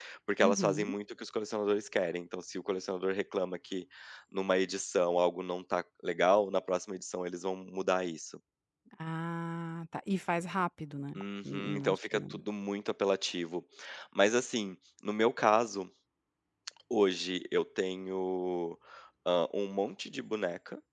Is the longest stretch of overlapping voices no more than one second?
No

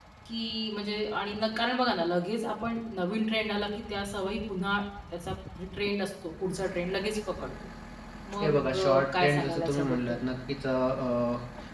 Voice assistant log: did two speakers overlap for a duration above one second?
Yes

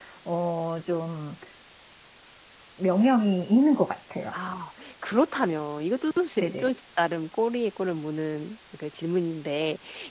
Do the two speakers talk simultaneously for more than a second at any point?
No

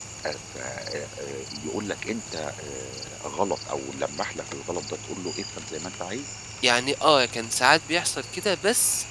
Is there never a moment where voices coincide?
Yes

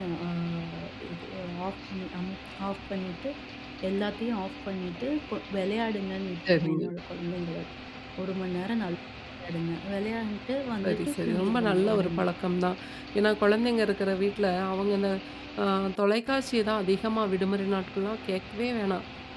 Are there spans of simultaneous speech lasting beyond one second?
Yes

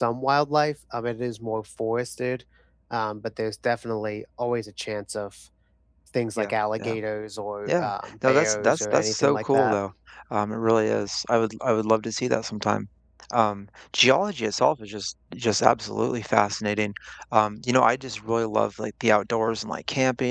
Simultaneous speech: Yes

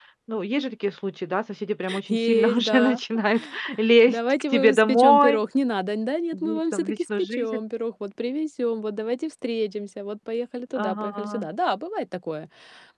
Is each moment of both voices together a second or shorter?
No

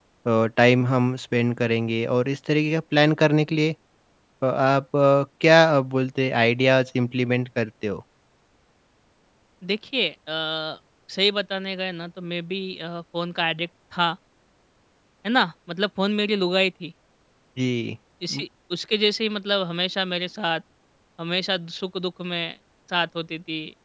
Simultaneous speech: No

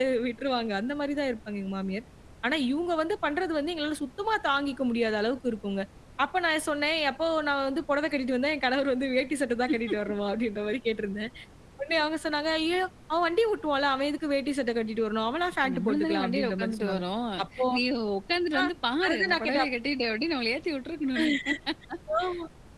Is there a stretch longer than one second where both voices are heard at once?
Yes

